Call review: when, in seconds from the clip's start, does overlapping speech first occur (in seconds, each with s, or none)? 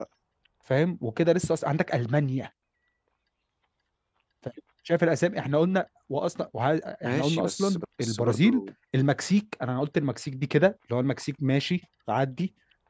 7.0 s